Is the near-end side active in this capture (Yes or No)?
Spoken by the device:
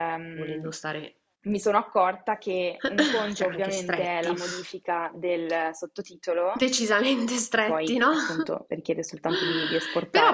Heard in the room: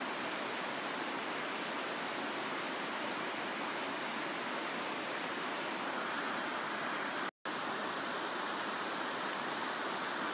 No